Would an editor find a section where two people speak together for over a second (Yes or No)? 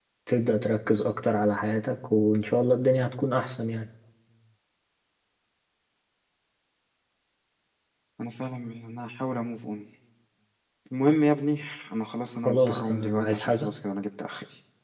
Yes